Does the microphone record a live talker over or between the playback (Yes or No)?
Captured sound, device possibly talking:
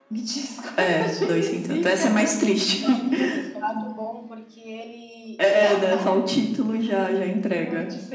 Yes